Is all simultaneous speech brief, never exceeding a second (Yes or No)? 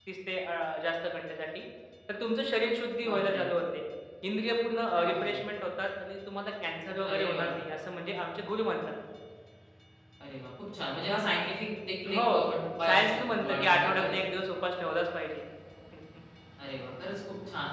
No